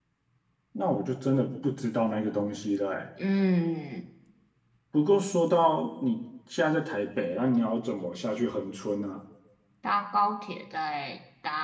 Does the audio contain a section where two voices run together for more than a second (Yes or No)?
No